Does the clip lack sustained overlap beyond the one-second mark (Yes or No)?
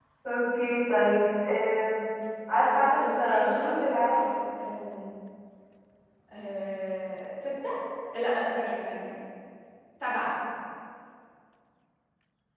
No